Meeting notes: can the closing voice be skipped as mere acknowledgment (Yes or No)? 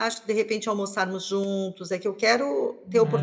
Yes